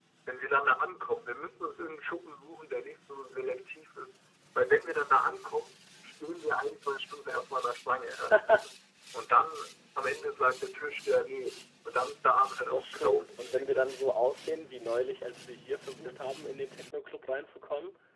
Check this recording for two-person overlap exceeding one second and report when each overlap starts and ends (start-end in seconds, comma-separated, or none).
12.7-13.9